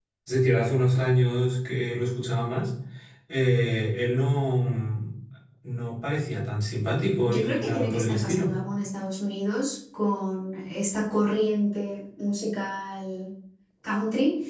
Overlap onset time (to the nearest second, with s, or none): 7 s